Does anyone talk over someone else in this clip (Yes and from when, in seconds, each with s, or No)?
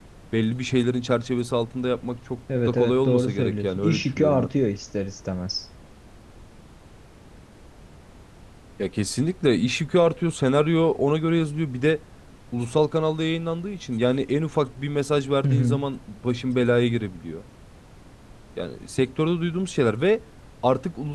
Yes, from 2.7 s